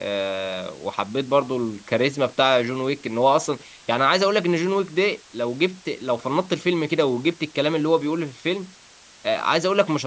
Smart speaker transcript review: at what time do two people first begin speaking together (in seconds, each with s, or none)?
none